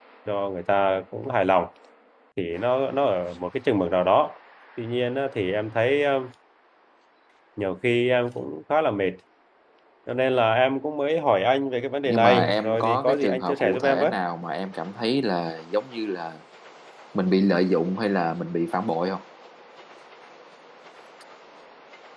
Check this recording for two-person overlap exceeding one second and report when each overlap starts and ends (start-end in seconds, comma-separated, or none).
12.1-14.1